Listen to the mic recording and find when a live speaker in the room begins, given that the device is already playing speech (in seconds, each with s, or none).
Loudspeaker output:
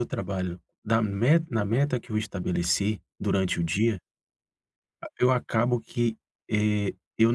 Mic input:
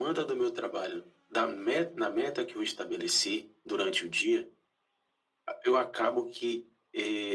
none